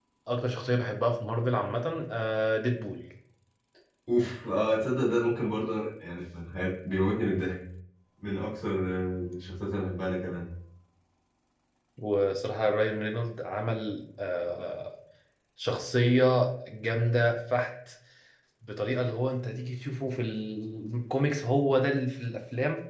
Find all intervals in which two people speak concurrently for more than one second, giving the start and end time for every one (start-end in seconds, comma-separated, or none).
none